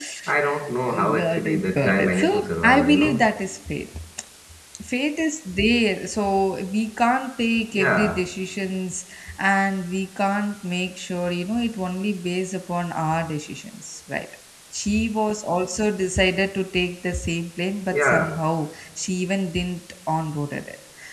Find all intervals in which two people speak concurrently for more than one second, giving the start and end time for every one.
0.8-3.2

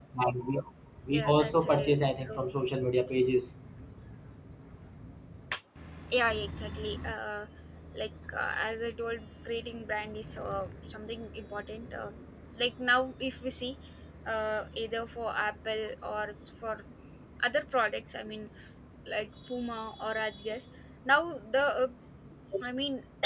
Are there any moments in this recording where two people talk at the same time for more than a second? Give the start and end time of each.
1.1-2.4

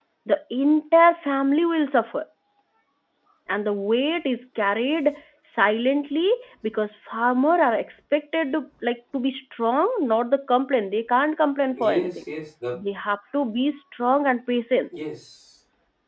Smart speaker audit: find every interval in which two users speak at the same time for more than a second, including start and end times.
none

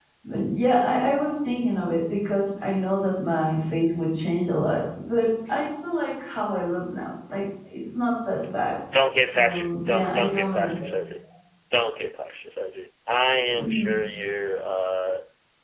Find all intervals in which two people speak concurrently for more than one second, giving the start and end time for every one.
9.2-10.7

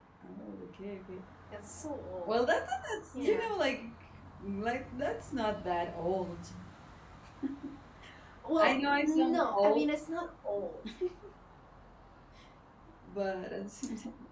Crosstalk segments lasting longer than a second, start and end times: 8.6-9.8

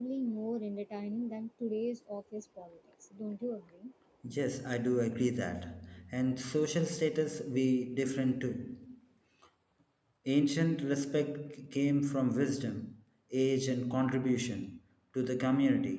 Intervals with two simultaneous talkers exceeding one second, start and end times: none

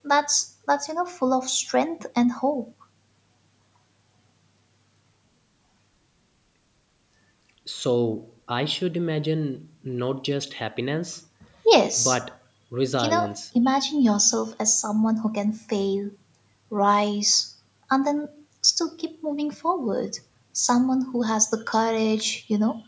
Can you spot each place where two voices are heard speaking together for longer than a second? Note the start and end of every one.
none

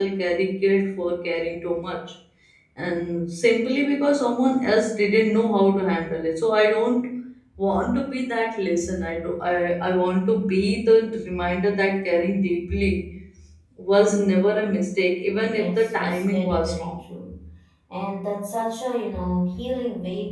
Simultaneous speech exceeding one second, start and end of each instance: 15.4-17.0

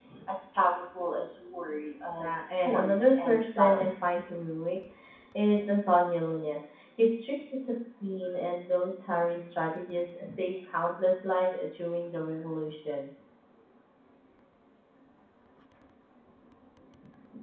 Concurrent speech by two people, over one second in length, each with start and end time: 2.2-4.1

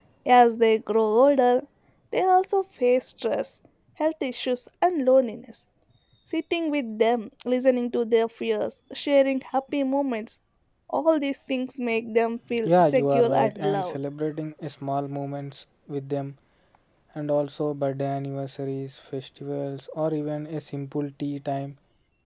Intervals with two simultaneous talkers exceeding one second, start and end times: 12.7-14.0

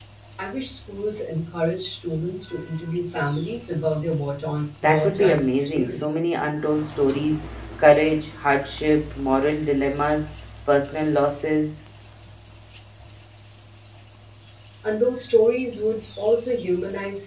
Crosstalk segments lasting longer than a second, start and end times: 4.8-6.4

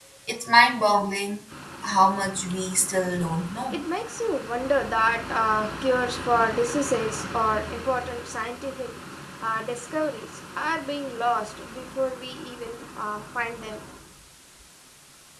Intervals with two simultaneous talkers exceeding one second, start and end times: none

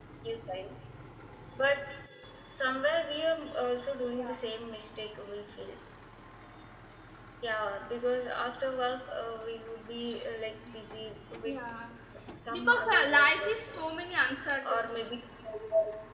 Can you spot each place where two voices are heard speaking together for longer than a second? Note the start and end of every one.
12.5-13.8

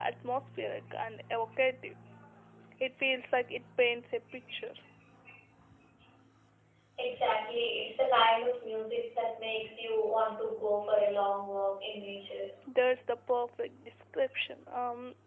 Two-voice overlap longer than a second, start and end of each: none

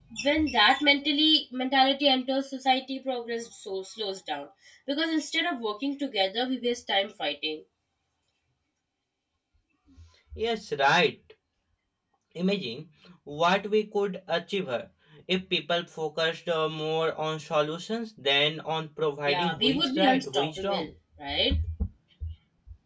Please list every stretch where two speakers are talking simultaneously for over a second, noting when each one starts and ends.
19.3-20.9

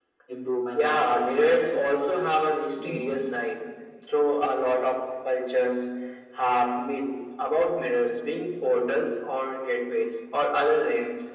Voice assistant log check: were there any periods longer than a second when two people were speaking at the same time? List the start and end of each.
0.7-2.0

